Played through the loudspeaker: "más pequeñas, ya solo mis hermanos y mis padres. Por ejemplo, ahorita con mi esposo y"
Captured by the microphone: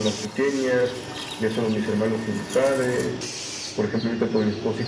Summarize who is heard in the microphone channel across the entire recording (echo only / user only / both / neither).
echo only